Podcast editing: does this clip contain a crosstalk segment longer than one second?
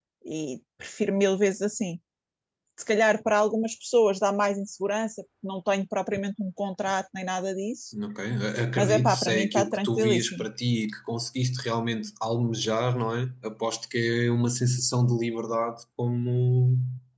Yes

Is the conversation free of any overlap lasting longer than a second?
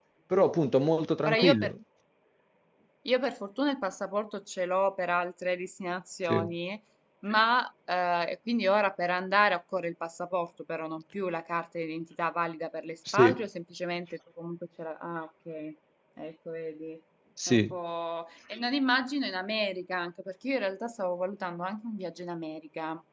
Yes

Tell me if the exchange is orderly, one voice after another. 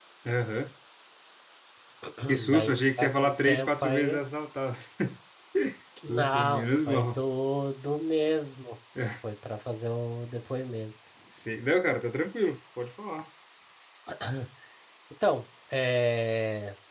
No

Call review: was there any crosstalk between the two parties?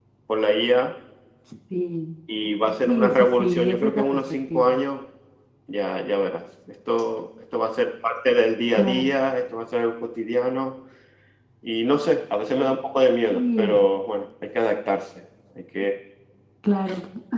Yes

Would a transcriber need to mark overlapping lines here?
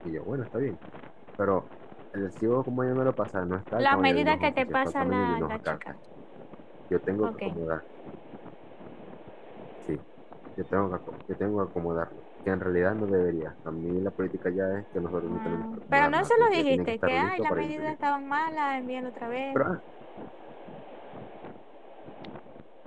Yes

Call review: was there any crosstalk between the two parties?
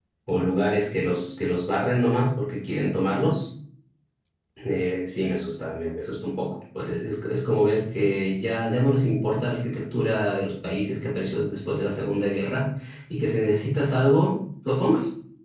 No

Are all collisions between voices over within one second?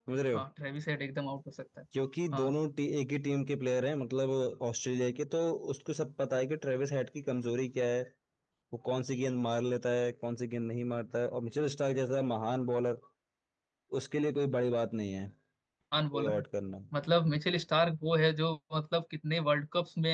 Yes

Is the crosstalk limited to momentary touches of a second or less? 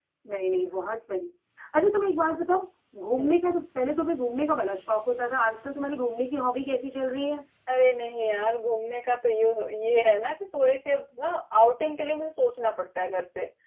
Yes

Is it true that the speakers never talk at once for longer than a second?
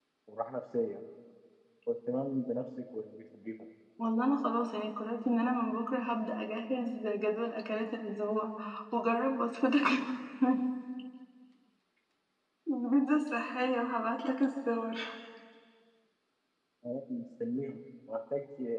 Yes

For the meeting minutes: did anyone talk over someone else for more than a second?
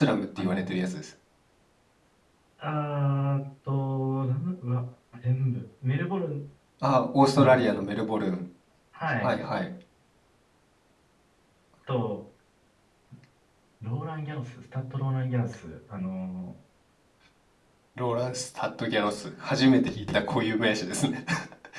No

